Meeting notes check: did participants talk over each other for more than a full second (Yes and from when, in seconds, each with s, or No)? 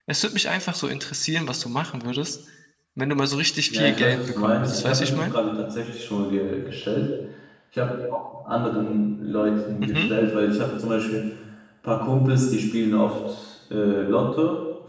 Yes, from 3.7 s